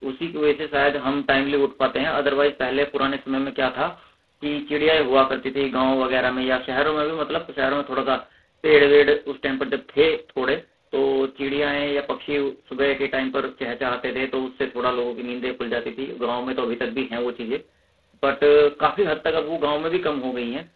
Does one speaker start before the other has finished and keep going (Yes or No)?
No